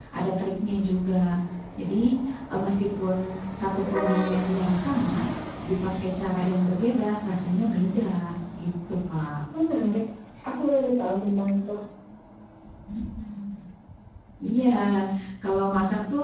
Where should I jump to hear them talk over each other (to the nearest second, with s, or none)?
none